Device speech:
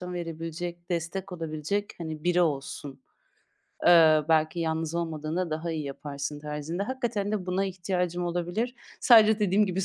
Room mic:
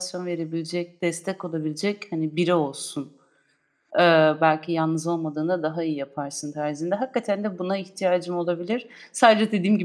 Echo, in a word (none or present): present